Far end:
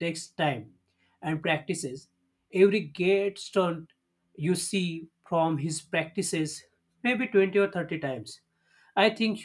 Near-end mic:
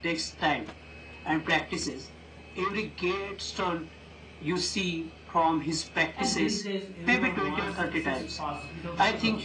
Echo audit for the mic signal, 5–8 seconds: both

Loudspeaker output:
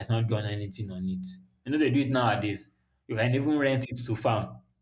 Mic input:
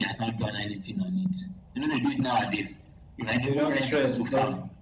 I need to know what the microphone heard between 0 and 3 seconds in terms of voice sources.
echo only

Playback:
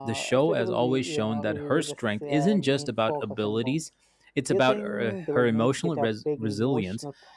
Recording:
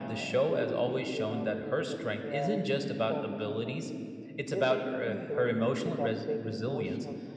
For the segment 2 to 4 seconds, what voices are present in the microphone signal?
echo only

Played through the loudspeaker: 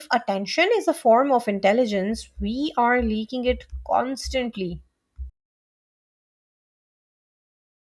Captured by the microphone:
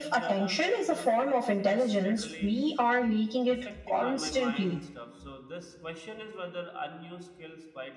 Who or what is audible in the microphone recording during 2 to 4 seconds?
both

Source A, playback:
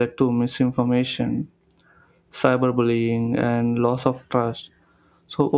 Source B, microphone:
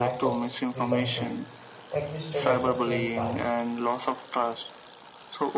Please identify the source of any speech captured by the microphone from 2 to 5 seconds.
both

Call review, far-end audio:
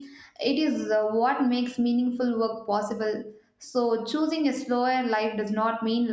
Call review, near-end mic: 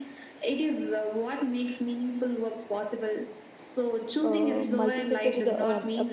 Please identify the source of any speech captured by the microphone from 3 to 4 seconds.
echo only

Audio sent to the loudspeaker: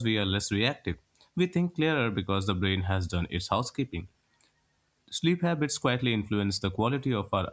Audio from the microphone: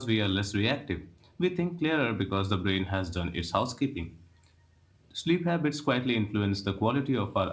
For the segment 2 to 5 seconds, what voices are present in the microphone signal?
echo only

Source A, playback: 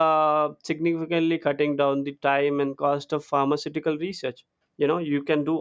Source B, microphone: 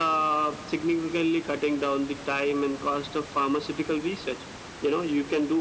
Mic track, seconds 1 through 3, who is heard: echo only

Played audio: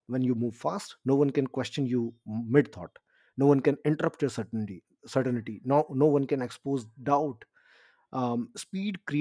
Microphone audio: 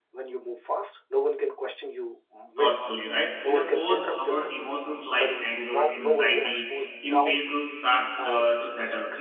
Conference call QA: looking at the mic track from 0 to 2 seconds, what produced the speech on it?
echo only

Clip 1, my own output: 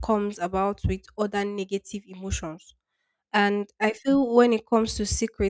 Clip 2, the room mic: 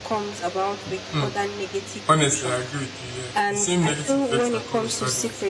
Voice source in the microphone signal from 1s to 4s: both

